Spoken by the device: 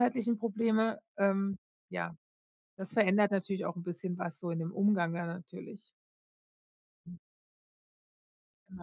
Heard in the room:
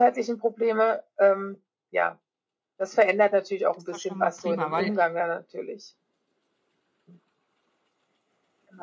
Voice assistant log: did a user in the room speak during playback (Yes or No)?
Yes